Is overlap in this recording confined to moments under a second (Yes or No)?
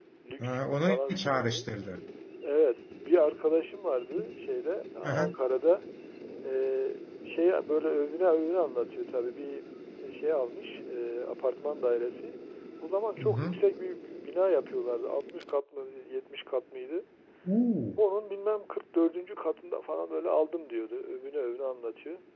No